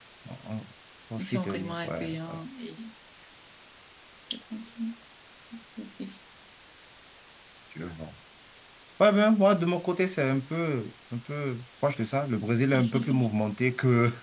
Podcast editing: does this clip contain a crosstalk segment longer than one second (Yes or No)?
Yes